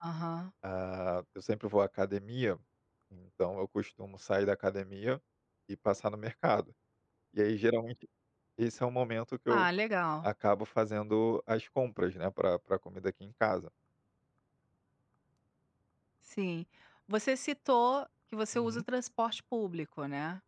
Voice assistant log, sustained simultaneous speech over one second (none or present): none